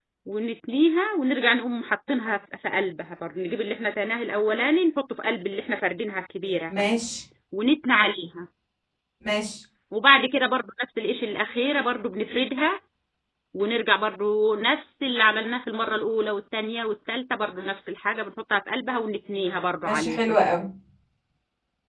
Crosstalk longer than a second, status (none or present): none